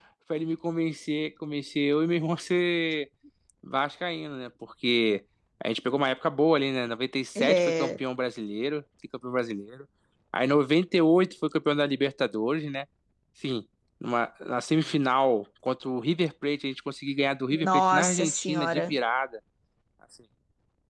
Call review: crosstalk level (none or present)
present